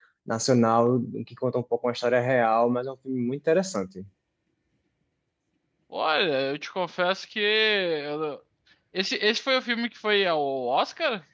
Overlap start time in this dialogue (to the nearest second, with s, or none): none